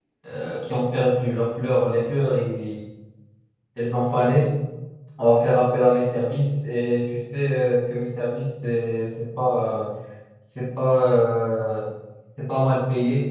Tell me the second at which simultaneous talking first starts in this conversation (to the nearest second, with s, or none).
none